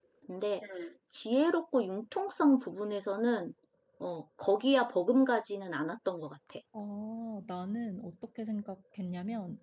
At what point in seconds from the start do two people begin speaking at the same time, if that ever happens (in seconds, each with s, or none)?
none